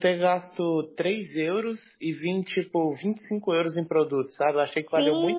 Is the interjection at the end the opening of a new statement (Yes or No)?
Yes